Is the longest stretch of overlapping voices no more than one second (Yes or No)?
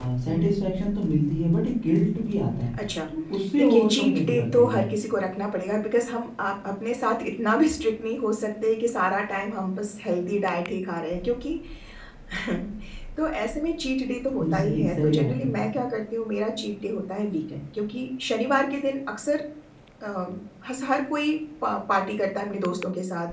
No